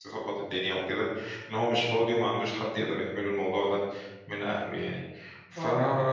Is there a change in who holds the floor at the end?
No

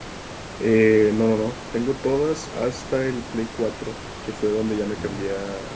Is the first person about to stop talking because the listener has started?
No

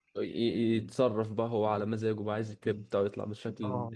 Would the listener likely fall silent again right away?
No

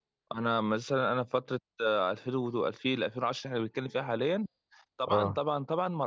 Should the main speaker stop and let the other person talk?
No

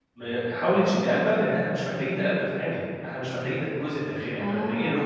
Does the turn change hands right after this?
Yes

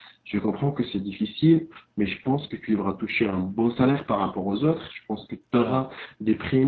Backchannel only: Yes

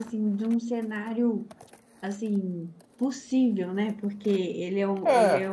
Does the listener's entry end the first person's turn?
No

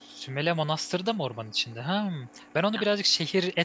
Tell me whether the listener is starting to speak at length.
No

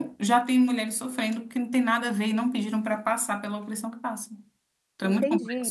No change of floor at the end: No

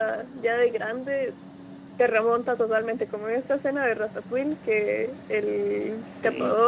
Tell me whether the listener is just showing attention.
Yes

